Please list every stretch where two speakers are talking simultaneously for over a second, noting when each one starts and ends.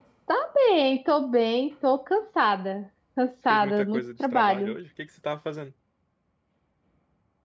3.5-4.8

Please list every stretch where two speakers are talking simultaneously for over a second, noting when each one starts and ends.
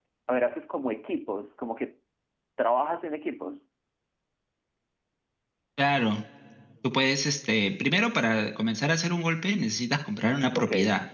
none

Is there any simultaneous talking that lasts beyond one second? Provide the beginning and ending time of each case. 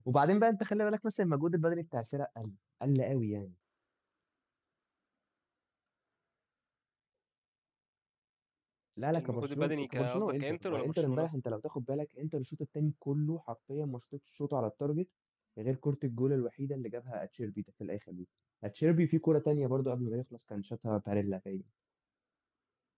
9.1-11.3

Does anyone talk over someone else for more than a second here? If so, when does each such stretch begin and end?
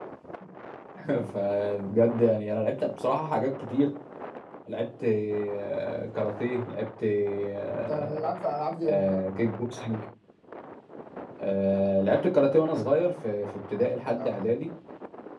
none

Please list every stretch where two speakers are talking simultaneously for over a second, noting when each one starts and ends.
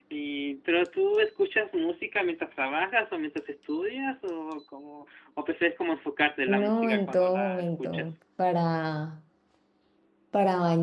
6.5-8.2

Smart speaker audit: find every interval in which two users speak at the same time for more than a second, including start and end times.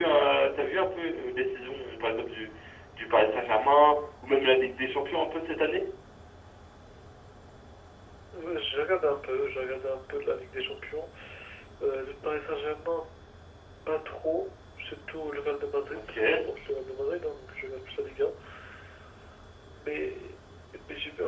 none

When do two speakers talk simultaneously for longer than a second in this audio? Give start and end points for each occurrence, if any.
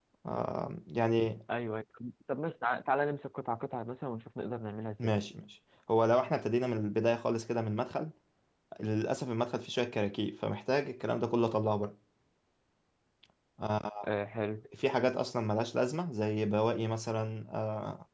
none

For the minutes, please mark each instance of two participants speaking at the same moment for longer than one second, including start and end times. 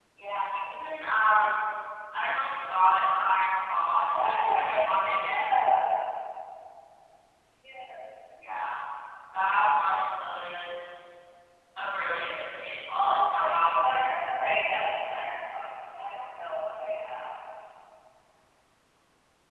4.1-5.5, 13.0-14.2

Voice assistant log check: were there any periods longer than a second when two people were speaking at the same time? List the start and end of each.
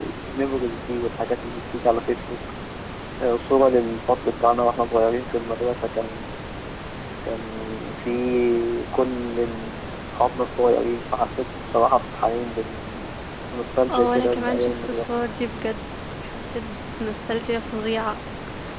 13.9-15.1

